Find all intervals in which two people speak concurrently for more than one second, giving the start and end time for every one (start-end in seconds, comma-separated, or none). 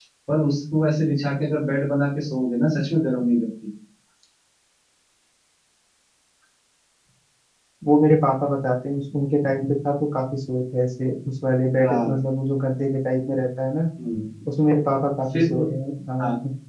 none